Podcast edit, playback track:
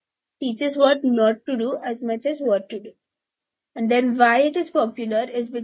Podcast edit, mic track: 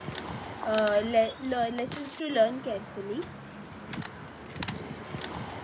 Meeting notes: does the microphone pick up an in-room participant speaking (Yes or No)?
Yes